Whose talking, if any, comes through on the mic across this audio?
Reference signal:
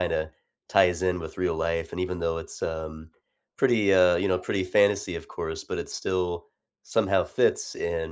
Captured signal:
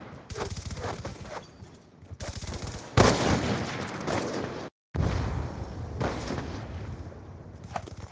neither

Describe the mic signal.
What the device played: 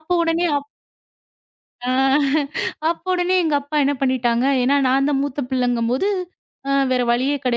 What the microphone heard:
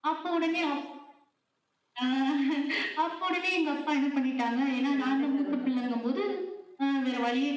both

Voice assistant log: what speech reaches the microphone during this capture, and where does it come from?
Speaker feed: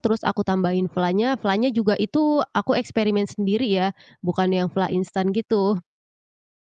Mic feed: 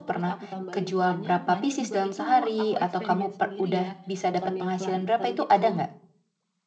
both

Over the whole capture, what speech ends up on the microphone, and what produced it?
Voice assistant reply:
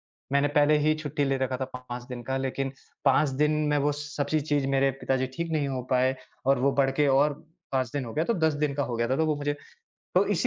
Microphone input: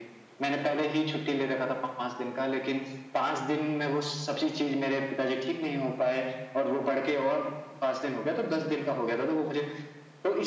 echo only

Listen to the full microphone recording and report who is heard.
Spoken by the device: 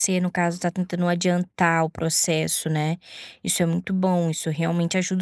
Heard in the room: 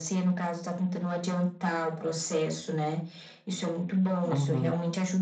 both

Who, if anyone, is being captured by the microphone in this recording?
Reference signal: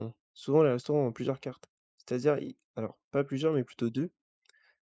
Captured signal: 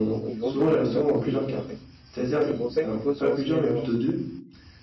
both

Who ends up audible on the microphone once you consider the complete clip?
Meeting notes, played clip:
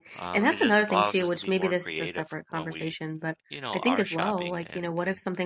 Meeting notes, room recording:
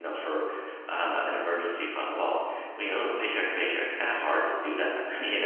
user only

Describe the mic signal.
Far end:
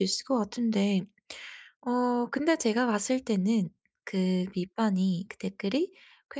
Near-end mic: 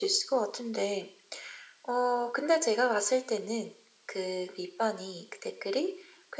echo only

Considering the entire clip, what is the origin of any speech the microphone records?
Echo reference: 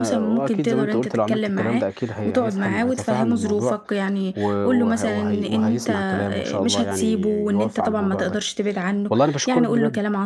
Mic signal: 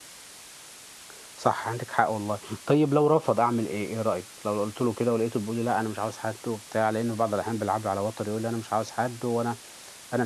user only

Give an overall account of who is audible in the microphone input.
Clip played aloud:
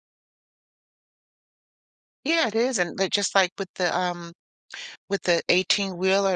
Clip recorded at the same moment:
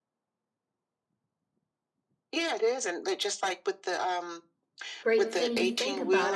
both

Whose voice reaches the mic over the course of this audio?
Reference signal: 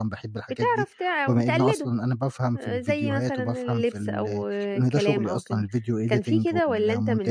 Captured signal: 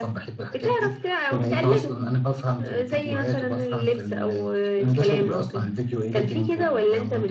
echo only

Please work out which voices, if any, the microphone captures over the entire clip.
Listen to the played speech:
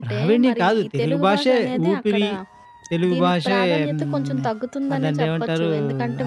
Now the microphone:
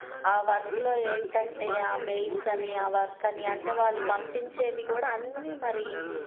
both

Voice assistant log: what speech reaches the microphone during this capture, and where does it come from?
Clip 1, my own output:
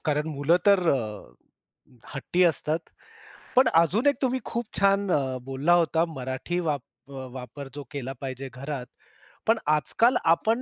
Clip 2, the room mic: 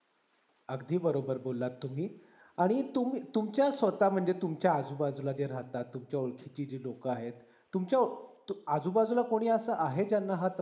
user only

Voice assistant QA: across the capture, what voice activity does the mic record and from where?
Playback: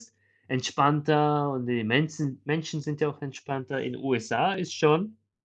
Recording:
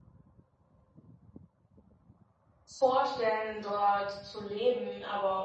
user only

